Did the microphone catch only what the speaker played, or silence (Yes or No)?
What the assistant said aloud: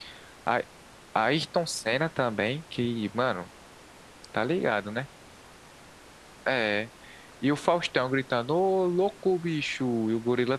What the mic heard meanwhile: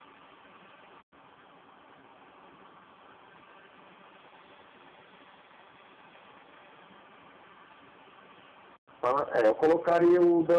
No